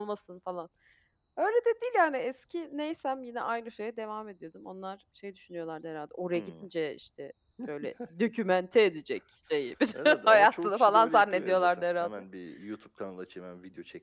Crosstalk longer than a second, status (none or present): present